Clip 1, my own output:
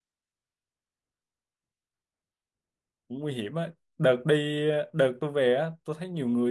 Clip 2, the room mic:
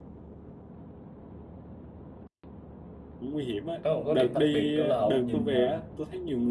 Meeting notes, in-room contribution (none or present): present